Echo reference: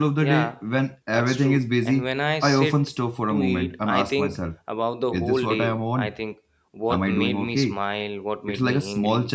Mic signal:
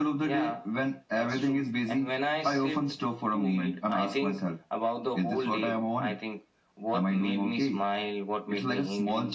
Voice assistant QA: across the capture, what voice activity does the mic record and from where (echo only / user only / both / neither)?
echo only